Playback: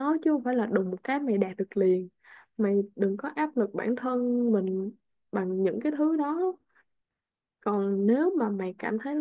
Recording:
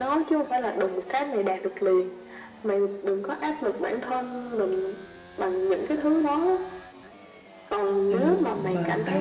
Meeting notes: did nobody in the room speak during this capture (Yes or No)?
No